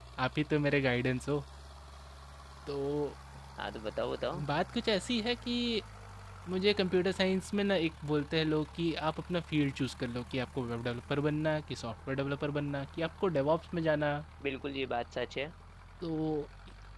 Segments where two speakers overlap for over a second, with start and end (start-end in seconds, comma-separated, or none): none